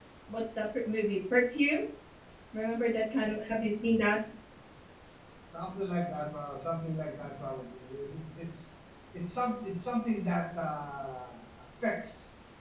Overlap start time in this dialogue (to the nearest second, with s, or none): none